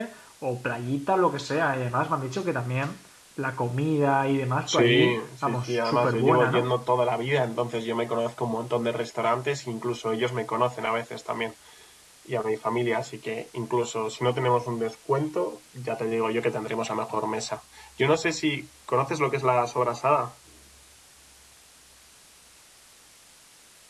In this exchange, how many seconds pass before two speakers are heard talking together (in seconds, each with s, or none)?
4.7 s